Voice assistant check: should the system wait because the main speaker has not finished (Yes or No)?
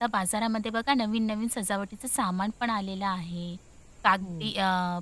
Yes